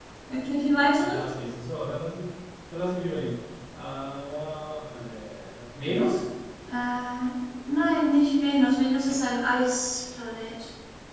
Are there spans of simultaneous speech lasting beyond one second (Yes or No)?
No